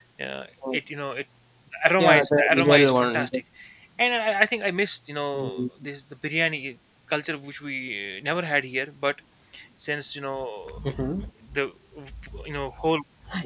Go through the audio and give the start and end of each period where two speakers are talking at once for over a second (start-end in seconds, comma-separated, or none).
2.0-3.3